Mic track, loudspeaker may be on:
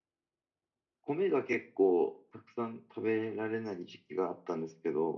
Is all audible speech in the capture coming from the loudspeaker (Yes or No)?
No